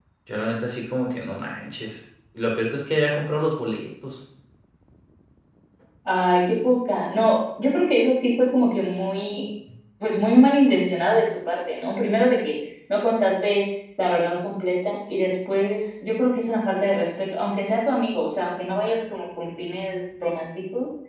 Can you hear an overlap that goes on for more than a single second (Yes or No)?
No